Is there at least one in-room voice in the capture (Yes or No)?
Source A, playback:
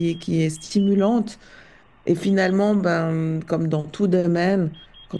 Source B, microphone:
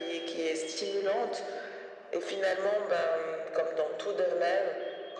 No